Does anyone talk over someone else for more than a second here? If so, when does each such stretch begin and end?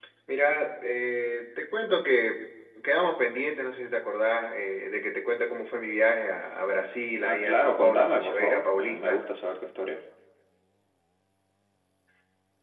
7.2-9.2

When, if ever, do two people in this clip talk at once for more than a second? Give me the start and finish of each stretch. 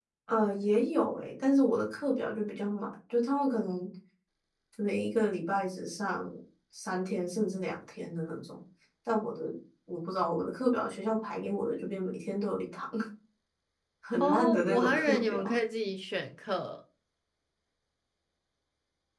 14.2-15.6

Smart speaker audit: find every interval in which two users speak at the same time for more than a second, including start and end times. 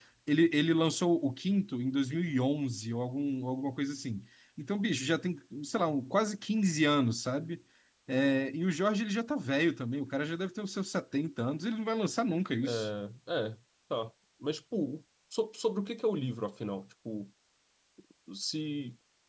none

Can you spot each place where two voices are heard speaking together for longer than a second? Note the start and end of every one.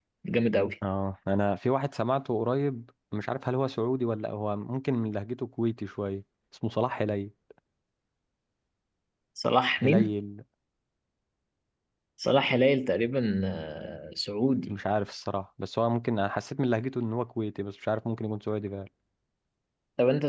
none

